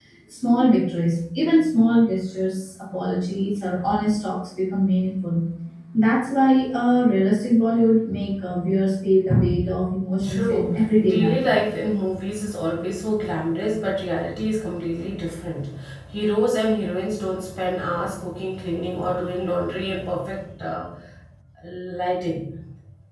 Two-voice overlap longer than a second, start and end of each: 10.2-11.4

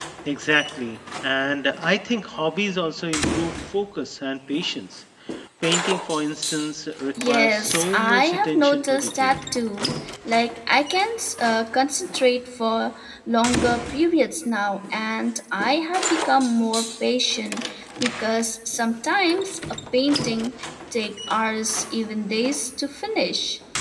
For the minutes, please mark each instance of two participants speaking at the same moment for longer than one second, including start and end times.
7.2-9.3

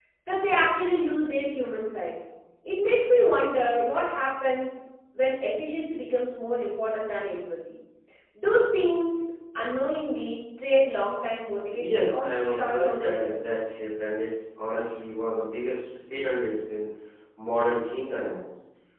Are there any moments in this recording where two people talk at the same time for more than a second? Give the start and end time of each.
11.8-13.5

